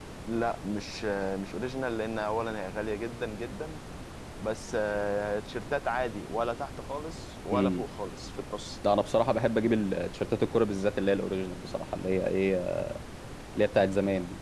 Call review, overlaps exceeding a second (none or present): none